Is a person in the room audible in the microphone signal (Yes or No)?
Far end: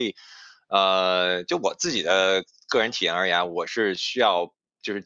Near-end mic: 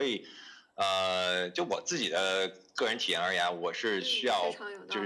Yes